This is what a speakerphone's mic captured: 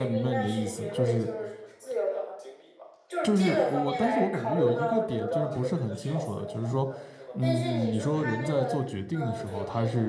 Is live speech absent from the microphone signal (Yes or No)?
No